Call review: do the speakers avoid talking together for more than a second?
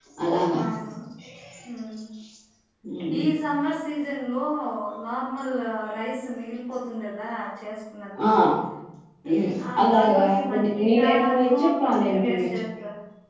No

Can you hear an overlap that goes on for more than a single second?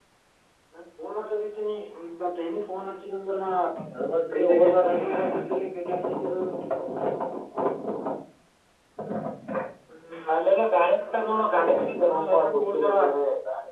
Yes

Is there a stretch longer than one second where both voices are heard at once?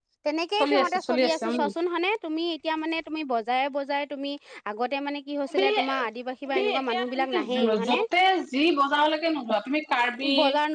Yes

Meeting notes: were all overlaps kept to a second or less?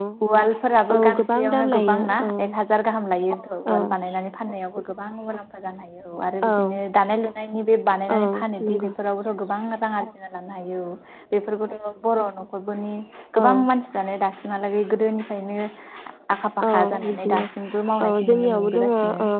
No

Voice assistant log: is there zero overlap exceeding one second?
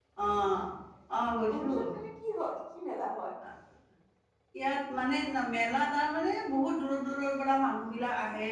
Yes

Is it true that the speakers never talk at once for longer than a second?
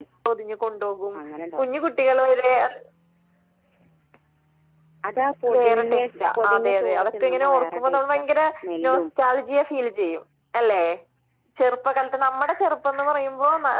No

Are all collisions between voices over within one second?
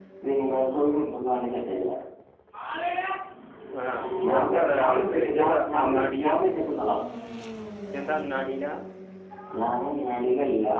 No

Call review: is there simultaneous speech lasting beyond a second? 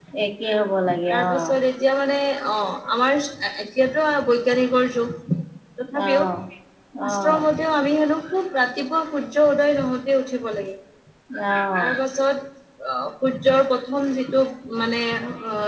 No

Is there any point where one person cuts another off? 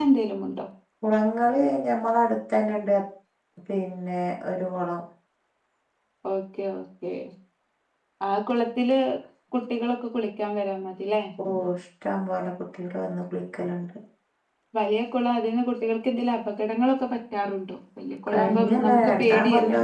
Yes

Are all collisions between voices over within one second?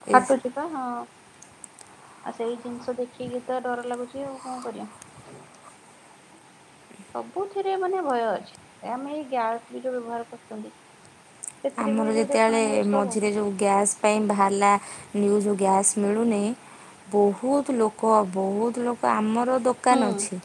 No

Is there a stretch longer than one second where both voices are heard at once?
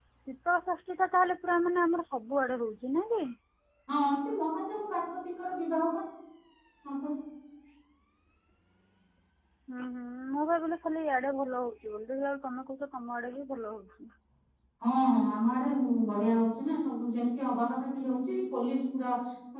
No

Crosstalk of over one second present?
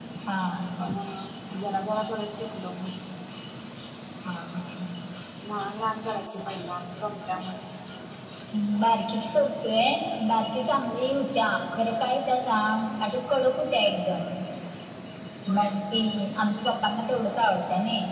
No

